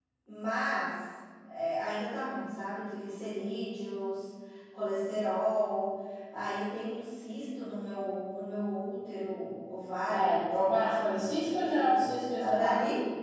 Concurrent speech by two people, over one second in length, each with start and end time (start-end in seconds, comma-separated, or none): 10.1-11.9